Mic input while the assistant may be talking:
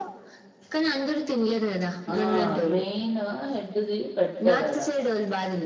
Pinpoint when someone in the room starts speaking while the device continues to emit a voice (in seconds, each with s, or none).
2.1 s